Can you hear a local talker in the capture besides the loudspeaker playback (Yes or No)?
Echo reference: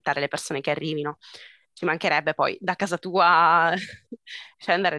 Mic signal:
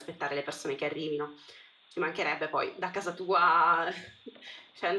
No